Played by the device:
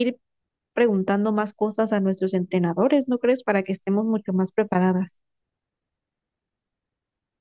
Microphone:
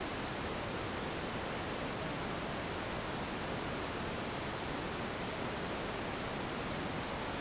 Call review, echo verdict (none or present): none